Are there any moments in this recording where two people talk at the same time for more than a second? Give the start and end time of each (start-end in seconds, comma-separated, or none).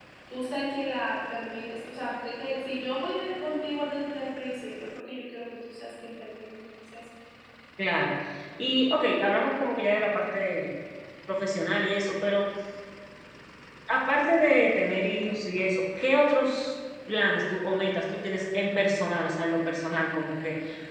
none